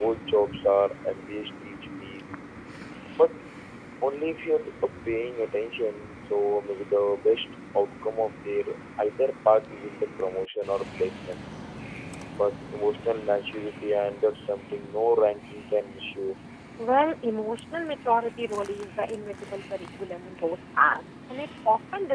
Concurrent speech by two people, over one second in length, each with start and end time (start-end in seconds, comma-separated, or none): none